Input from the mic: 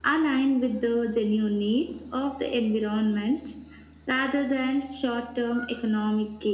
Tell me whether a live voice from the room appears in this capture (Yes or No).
No